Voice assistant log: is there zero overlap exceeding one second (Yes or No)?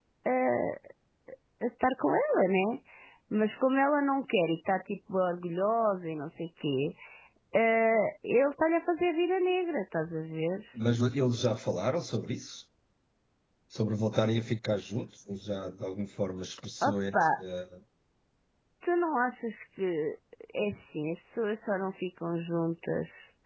Yes